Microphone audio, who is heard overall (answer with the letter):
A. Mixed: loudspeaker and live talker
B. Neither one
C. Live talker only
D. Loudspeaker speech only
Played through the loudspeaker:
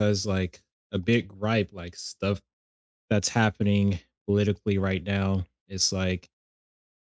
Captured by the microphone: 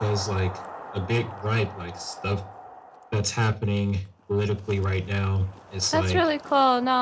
A